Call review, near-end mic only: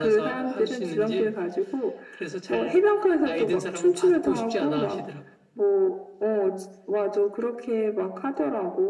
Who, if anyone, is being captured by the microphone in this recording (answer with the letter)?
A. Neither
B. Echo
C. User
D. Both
B